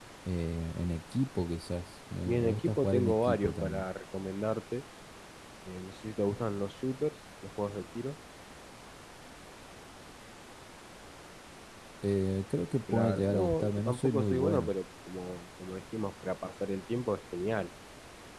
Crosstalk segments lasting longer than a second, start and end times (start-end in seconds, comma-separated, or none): 2.3-3.9, 12.9-14.7